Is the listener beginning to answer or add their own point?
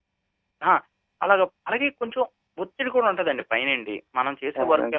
No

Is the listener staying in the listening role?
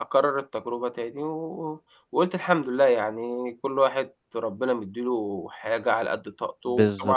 Yes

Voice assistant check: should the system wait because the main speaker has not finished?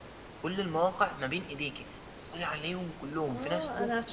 No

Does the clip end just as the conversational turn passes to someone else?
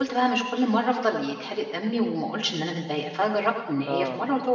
No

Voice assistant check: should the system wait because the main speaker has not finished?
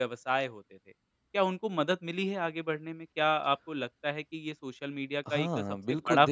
No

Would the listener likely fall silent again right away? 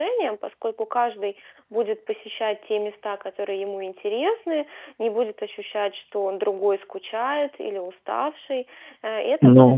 Yes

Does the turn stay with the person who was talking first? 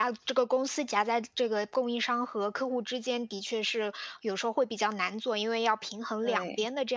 Yes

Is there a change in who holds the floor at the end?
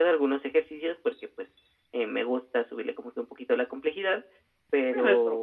Yes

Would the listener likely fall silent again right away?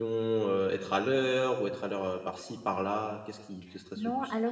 No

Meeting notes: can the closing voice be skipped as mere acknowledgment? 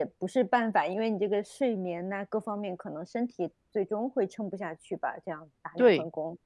No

